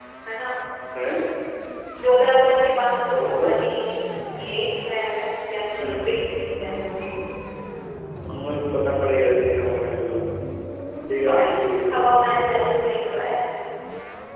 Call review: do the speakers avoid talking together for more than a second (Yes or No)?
Yes